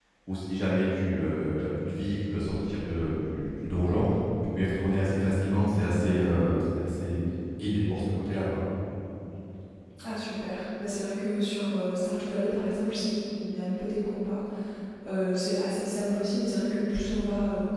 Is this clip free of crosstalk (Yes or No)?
Yes